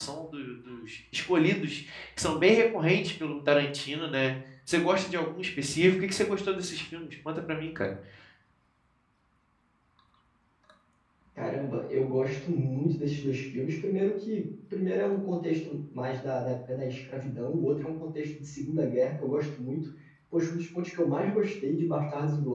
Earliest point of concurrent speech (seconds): none

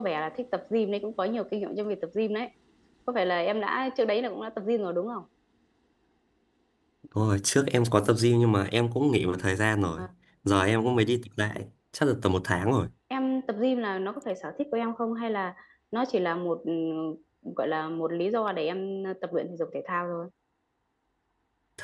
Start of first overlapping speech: none

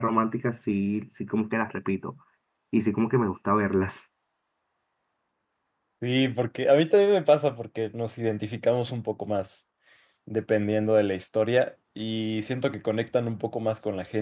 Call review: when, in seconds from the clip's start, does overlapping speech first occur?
none

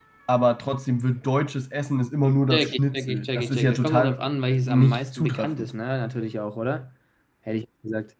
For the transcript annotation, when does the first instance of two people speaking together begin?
2.5 s

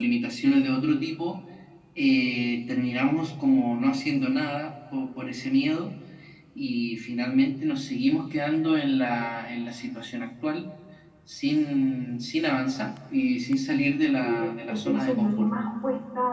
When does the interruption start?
14.2 s

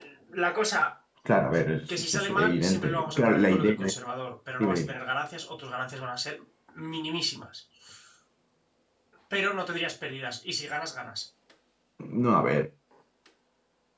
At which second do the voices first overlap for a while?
1.9 s

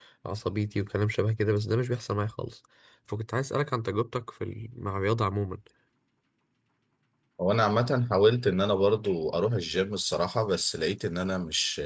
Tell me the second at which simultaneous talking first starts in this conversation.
none

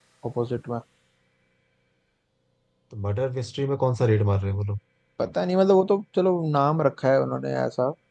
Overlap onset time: none

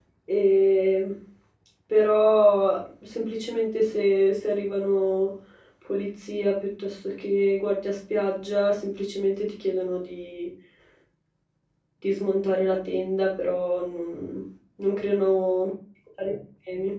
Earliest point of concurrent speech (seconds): none

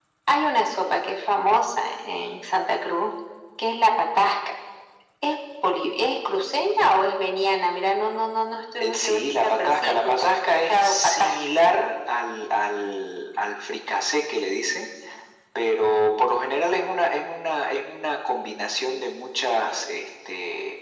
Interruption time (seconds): 8.8 s

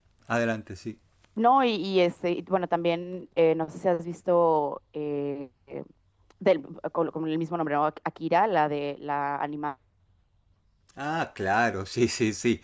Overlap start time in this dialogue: none

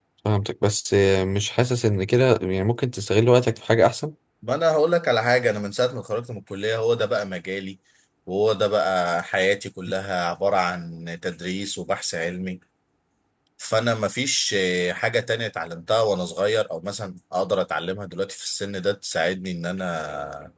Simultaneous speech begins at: none

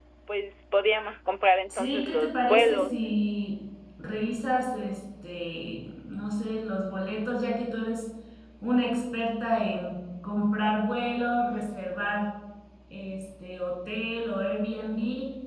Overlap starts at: 1.7 s

